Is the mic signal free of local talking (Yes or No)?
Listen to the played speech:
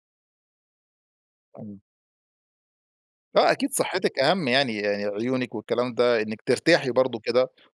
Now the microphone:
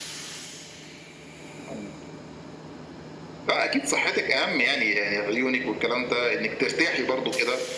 Yes